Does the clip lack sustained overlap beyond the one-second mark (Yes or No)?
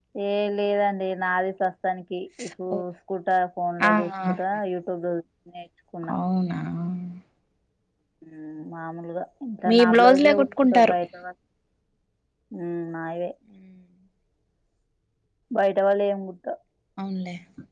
No